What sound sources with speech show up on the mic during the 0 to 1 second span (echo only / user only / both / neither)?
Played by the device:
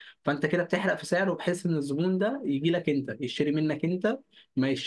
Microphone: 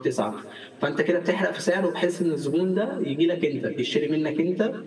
echo only